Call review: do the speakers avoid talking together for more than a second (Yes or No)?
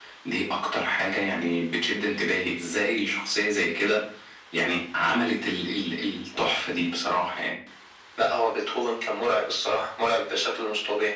Yes